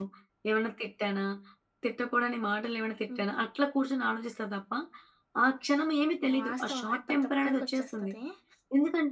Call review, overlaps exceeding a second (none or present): present